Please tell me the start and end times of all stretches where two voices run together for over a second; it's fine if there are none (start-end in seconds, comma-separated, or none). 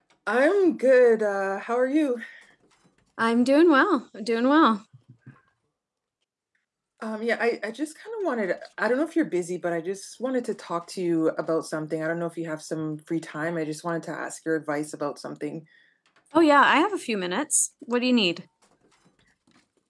none